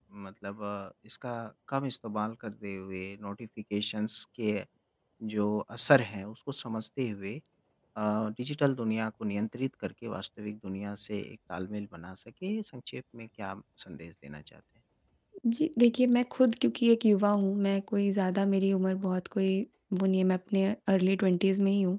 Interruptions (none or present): none